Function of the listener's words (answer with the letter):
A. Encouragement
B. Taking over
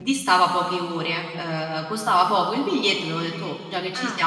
B